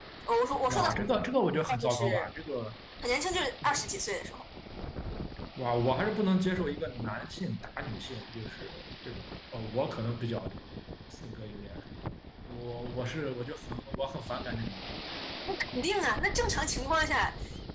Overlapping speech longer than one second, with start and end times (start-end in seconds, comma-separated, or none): 0.7-2.3